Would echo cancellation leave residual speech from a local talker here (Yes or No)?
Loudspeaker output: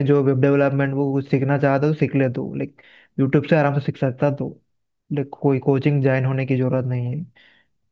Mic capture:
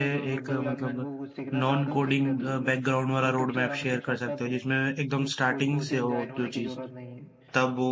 Yes